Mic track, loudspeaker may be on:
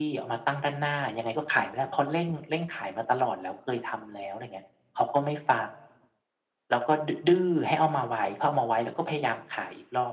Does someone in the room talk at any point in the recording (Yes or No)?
No